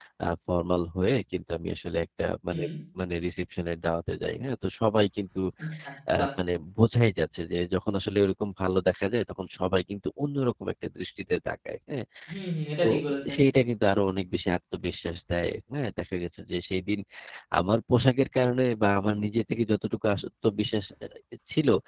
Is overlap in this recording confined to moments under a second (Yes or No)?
Yes